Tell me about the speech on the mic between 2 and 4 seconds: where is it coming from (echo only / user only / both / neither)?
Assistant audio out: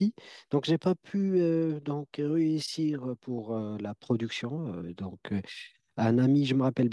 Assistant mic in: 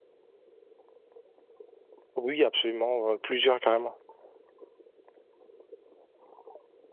user only